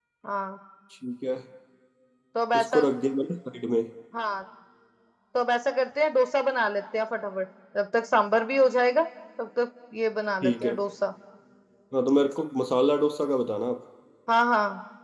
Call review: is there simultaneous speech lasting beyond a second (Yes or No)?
No